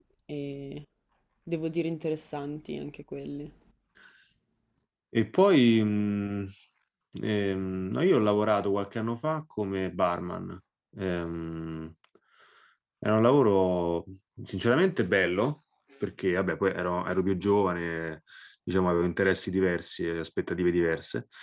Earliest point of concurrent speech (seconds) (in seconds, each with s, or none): none